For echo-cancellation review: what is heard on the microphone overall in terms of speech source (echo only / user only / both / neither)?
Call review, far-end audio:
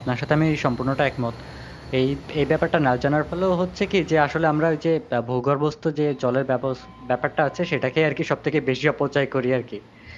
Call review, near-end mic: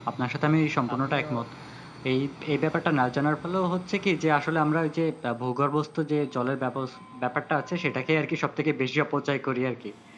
both